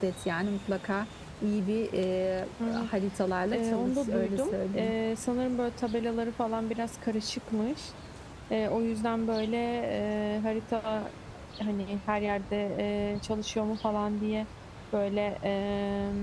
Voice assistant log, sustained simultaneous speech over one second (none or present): present